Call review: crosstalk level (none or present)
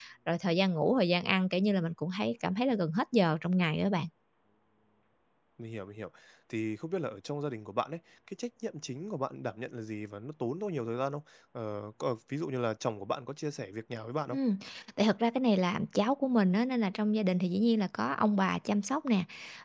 none